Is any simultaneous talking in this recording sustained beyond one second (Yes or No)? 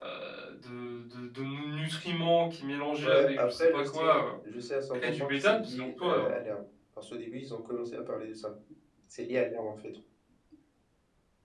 Yes